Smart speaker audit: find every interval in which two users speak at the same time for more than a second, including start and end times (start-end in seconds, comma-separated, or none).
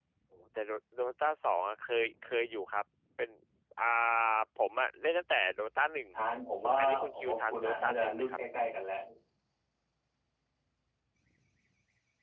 6.8-8.4